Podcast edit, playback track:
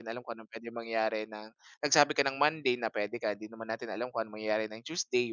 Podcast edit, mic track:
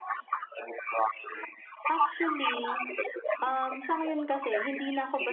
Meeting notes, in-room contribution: present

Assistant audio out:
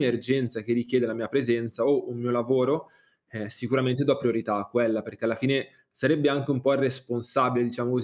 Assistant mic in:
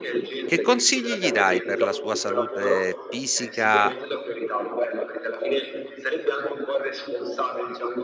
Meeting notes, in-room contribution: present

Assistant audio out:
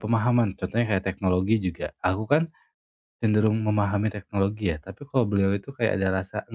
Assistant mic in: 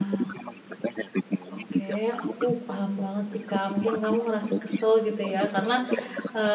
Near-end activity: present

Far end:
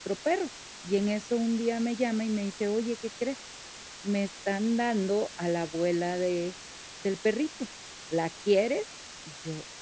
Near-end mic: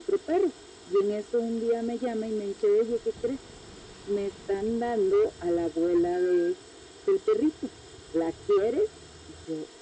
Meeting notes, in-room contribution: none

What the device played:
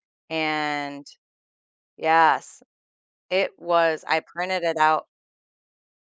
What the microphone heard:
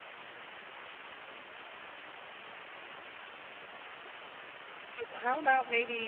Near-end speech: present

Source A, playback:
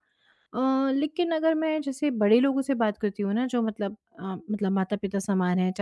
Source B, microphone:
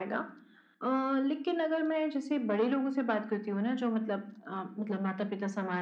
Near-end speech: none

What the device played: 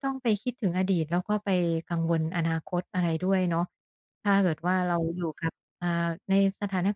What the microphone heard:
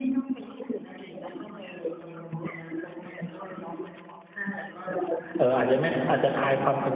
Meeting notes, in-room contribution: present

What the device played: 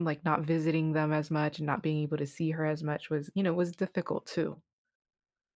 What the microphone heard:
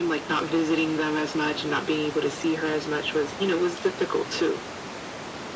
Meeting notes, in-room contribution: none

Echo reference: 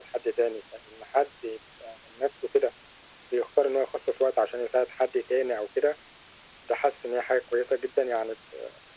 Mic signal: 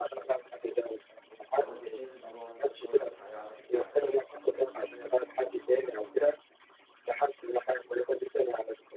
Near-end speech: present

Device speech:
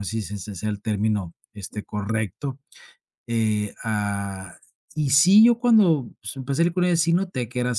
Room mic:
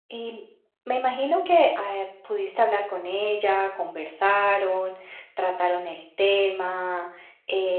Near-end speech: present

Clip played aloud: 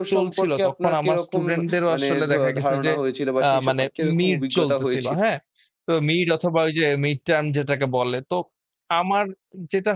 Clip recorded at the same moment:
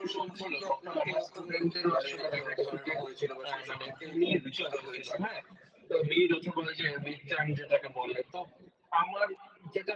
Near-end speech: none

